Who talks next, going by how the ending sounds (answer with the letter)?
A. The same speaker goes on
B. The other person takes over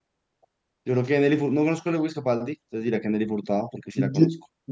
B